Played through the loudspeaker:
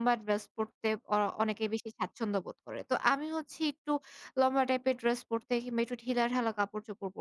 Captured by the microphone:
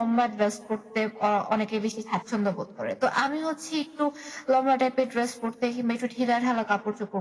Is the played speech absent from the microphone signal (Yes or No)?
No